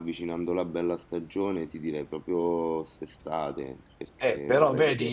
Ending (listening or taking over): taking over